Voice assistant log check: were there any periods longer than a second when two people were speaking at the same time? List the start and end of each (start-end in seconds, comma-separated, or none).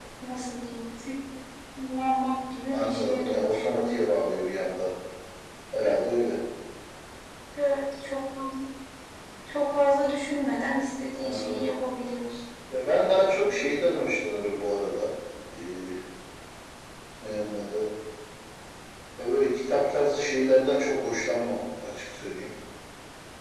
2.7-4.0